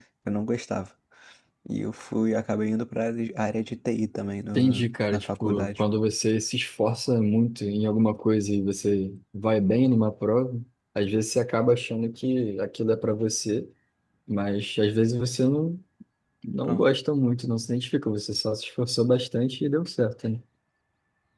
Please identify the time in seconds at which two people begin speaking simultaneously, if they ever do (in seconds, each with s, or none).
4.6 s